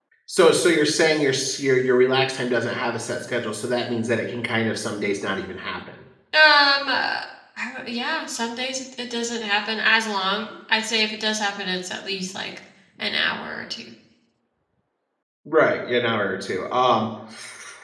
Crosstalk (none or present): none